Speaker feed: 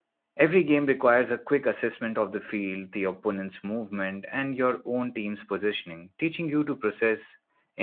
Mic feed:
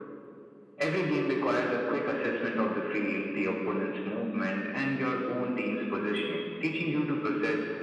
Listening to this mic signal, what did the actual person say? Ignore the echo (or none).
none